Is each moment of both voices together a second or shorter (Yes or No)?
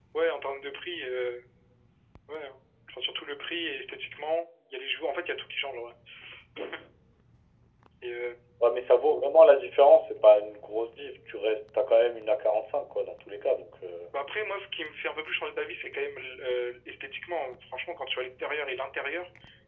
Yes